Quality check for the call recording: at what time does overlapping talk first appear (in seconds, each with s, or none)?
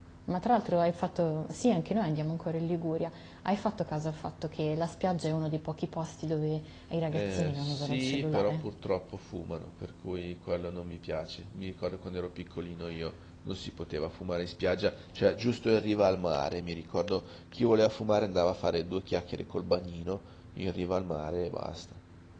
7.1 s